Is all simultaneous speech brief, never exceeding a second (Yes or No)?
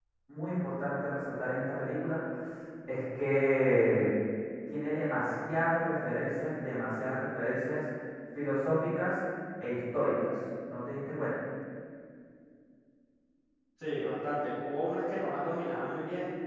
Yes